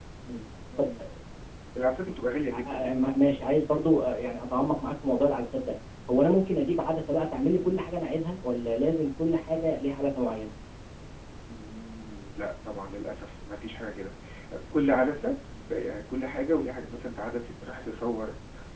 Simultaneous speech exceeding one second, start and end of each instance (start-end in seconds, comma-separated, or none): none